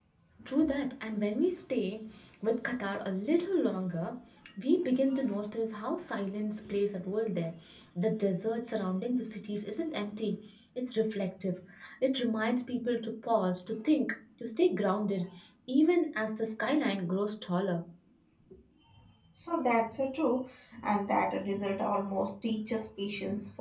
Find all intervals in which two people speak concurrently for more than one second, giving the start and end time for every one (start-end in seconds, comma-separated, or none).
none